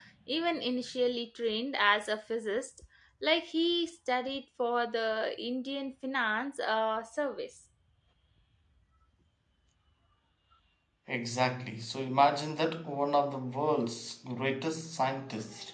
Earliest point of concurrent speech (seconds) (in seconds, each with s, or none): none